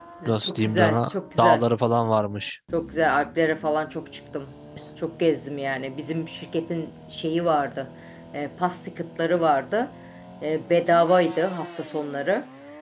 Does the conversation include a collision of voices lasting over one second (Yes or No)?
Yes